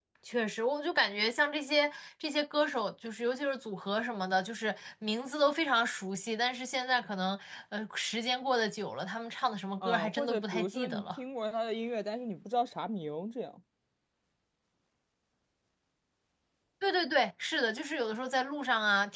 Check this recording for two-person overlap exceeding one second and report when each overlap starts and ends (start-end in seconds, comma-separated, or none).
9.8-11.2